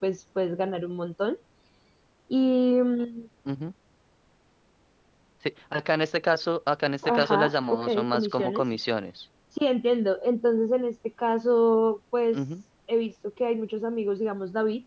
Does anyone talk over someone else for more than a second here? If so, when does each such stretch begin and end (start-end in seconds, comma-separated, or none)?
7.0-8.6